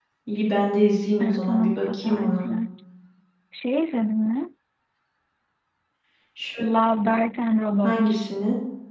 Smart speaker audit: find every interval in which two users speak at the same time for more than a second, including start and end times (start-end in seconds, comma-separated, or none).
1.2-2.5